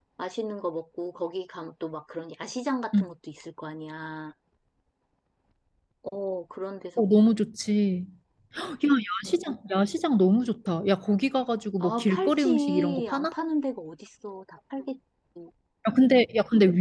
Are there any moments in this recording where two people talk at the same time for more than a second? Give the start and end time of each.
11.8-13.3

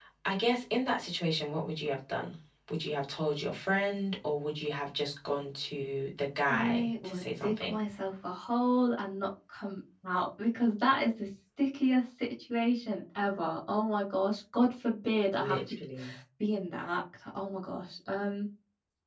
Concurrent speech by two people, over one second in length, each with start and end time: 6.5-7.8

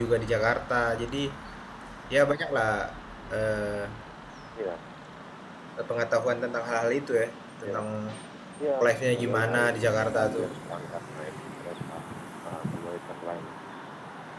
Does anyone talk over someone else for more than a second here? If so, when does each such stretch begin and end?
9.1-10.5

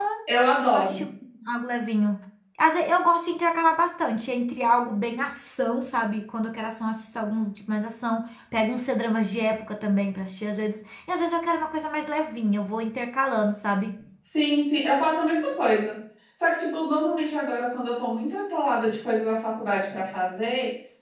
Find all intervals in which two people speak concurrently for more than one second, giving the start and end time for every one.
none

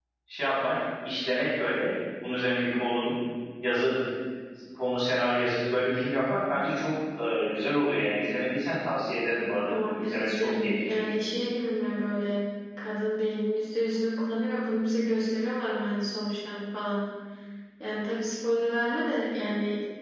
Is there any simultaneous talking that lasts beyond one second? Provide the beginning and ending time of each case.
9.7-11.2

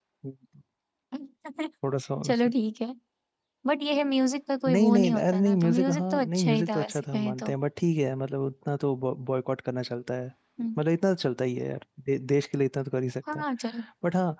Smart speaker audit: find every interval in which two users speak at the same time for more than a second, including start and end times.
4.7-7.5

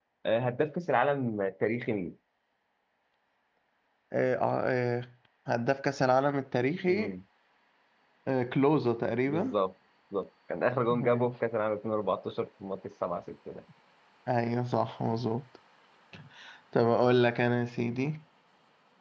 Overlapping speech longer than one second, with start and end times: none

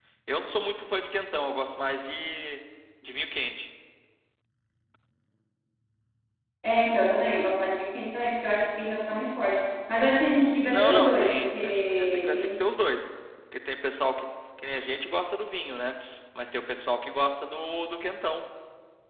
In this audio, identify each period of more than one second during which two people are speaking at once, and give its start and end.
10.7-12.6

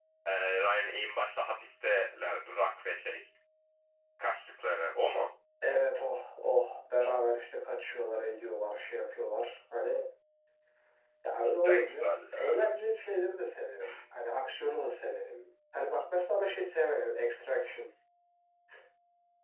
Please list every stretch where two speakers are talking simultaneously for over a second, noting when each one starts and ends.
11.4-12.7

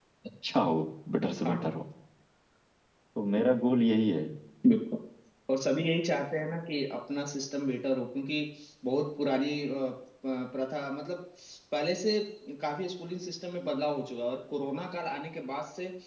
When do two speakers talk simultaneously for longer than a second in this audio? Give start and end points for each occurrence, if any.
none

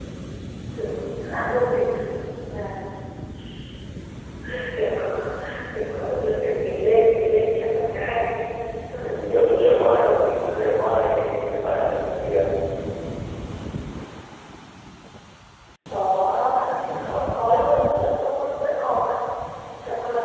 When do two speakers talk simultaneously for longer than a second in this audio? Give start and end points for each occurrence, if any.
8.9-10.6

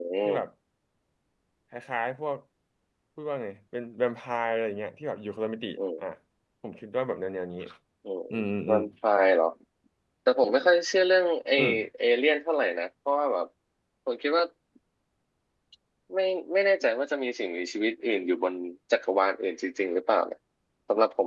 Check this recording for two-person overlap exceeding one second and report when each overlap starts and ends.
none

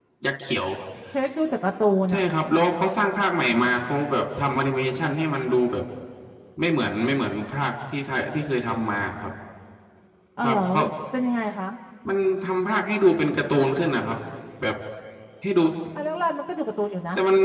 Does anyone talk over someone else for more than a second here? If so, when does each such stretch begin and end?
none

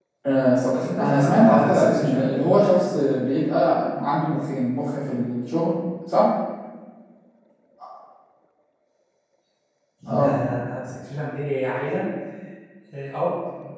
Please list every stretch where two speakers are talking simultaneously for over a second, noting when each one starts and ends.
0.7-2.3

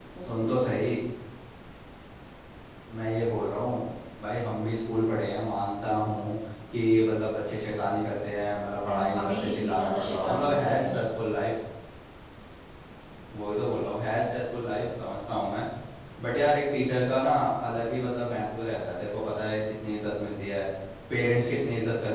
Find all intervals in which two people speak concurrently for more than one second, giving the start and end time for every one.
8.8-10.9

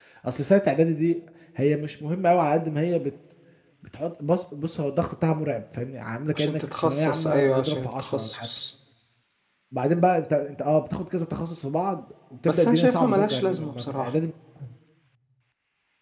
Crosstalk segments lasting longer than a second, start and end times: 6.3-8.5, 12.5-14.1

